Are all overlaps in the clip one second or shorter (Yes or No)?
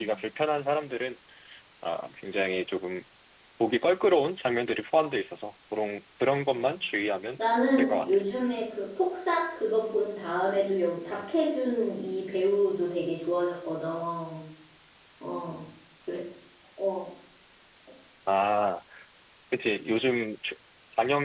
Yes